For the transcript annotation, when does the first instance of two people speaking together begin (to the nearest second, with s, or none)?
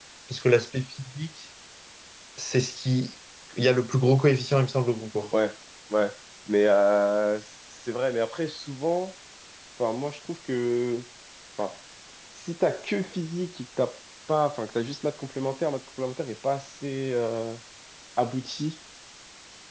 none